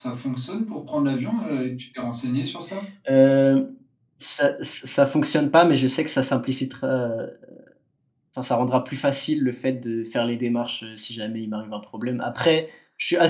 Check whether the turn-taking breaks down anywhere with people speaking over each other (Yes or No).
No